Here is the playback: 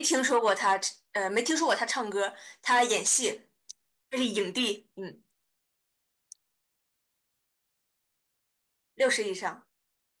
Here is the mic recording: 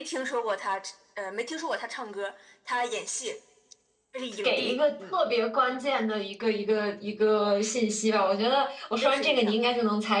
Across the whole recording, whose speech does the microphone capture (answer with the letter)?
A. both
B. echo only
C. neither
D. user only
A